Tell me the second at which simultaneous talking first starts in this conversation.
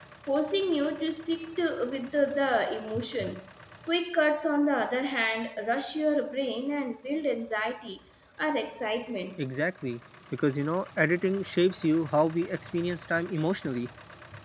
none

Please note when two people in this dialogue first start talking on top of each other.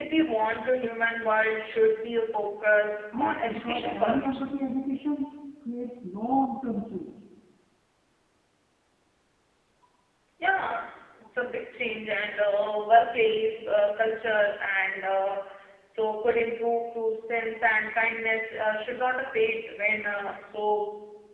3.1 s

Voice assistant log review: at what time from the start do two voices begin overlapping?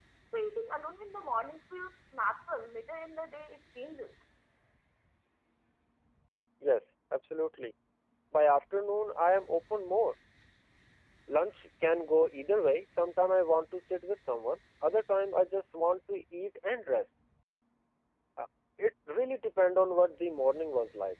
none

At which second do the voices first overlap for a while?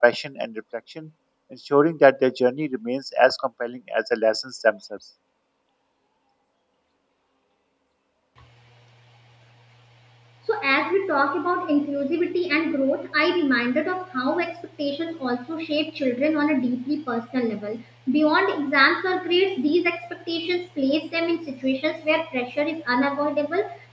none

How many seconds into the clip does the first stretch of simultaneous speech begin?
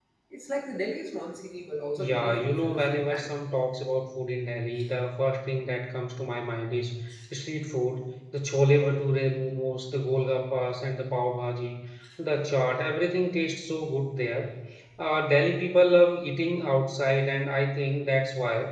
2.0 s

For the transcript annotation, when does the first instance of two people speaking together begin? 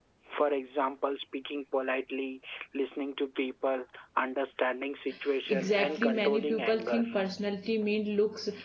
5.5 s

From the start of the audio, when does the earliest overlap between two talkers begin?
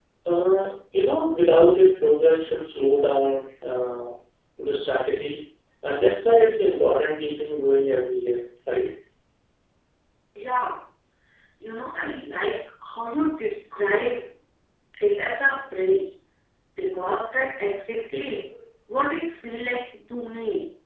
none

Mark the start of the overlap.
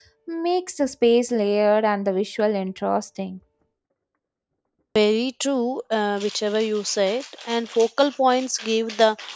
none

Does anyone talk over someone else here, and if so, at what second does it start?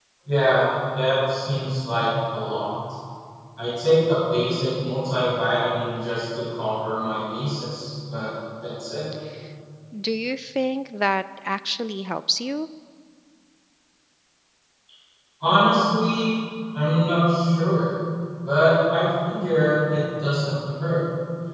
none

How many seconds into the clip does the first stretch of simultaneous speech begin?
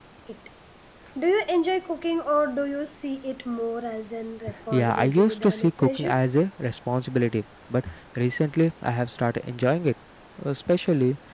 4.7 s

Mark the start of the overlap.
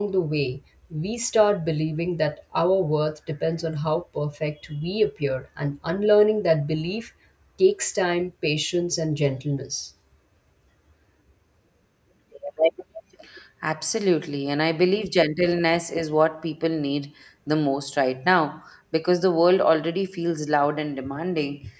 none

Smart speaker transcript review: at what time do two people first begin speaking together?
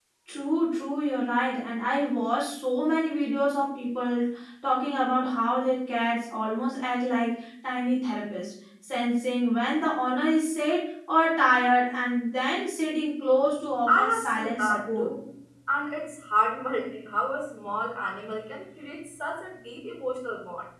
13.9 s

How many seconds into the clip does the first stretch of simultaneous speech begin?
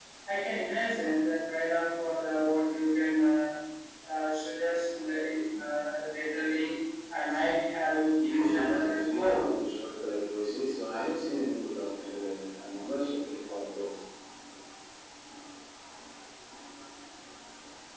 8.2 s

